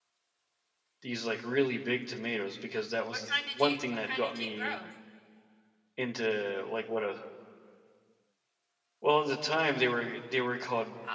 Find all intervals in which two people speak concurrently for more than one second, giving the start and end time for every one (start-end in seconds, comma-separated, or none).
3.1-4.8